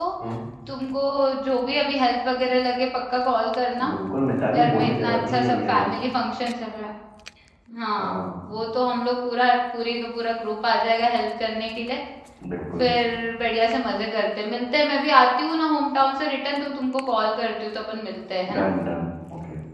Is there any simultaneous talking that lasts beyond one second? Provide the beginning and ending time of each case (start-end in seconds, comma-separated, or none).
4.5-5.7